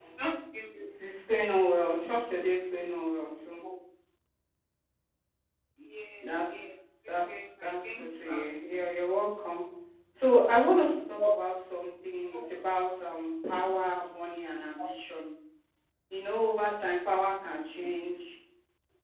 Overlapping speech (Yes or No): Yes